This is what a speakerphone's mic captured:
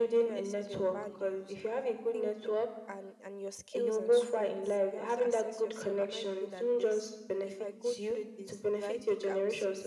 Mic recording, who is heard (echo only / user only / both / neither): both